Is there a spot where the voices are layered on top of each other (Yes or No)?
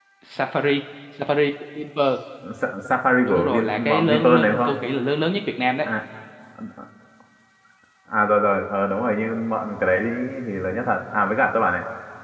Yes